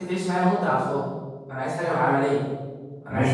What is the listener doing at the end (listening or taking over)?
taking over